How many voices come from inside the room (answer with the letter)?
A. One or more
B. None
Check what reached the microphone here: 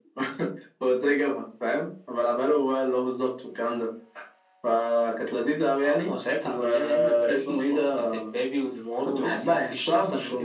B